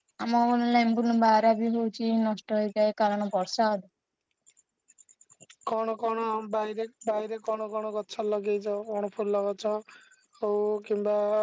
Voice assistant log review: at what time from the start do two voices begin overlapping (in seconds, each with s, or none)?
none